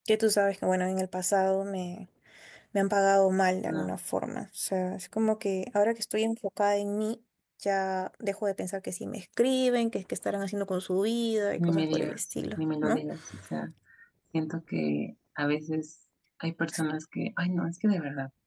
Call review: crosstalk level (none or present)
present